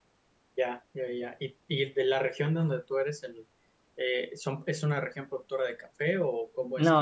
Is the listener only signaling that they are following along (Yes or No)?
No